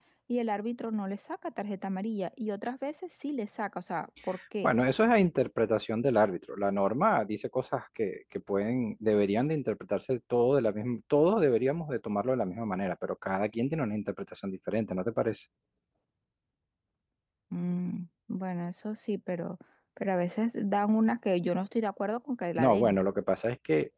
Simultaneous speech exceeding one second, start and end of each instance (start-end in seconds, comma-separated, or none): none